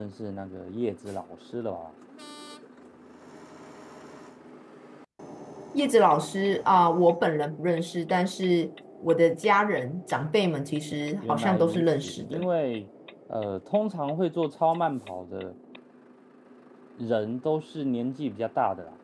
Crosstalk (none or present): present